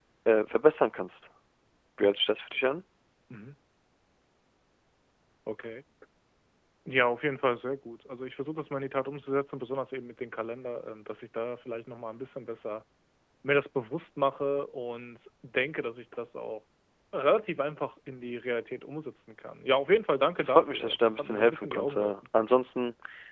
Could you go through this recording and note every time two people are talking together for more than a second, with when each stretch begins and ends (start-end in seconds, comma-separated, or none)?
20.4-22.1